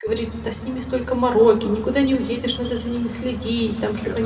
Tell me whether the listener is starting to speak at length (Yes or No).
No